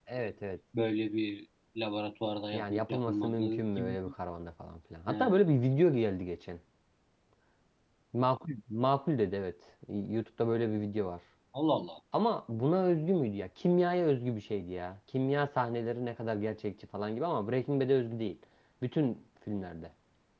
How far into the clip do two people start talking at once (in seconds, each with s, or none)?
2.5 s